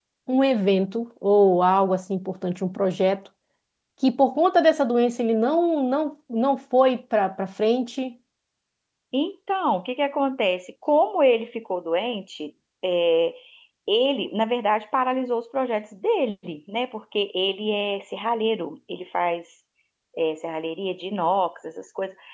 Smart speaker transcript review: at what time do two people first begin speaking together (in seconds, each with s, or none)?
none